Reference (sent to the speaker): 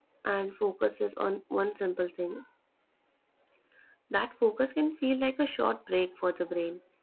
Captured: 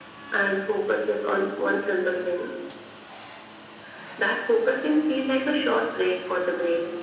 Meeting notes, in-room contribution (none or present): none